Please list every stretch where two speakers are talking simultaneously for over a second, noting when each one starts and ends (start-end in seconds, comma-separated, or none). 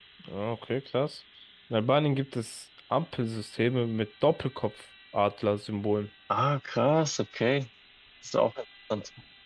none